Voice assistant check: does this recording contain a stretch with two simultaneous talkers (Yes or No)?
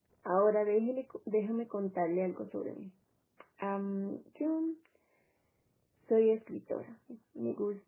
No